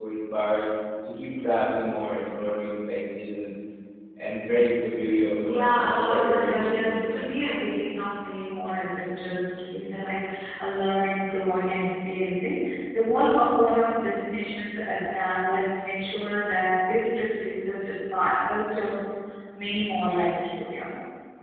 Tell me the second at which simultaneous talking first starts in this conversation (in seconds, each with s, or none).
5.4 s